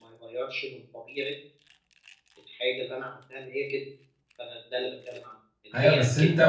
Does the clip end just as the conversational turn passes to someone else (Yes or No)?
Yes